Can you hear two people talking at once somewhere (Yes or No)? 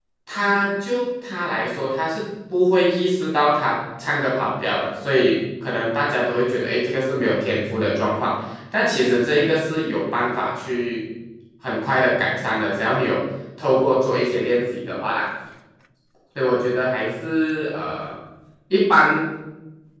No